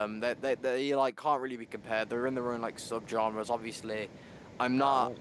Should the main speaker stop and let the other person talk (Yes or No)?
No